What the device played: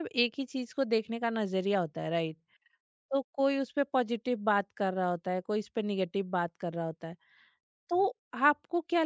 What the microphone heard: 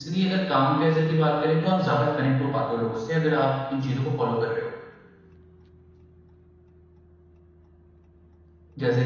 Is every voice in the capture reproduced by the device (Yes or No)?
No